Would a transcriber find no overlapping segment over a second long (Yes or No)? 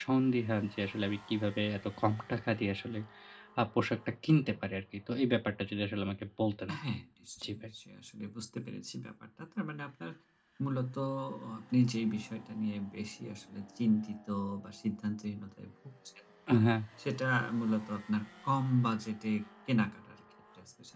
Yes